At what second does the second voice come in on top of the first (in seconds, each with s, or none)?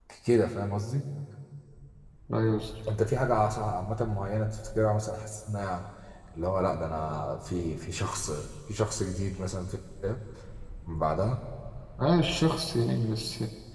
none